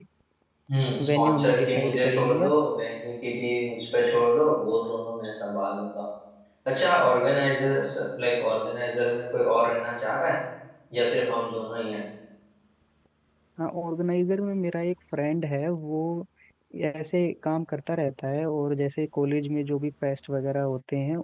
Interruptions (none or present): present